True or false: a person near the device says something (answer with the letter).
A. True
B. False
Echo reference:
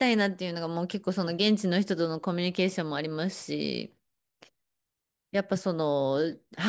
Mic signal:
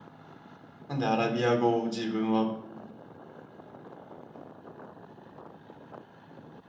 A